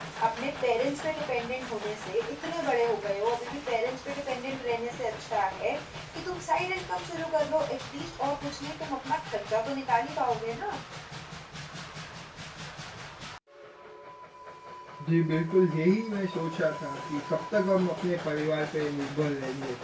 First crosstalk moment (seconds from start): none

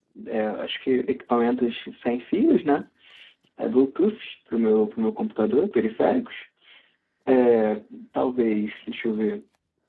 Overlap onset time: none

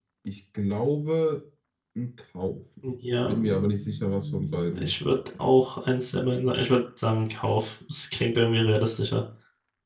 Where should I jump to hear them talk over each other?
3.3 s

